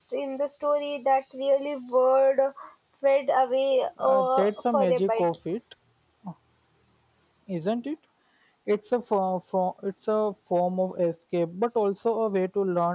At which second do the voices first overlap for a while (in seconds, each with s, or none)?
4.0 s